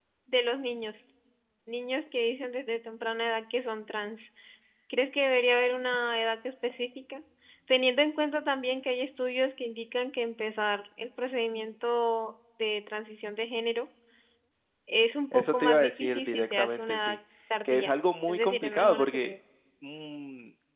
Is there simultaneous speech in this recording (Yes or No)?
Yes